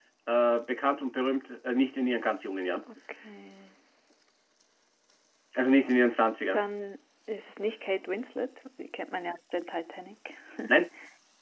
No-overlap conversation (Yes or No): Yes